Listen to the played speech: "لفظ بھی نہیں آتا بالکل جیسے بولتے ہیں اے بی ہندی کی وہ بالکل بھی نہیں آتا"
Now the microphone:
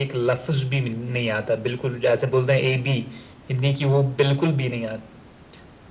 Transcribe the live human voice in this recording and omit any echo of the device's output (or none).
none